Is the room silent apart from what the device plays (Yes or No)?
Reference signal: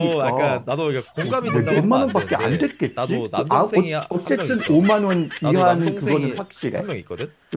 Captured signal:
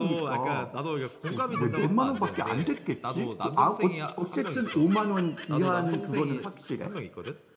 Yes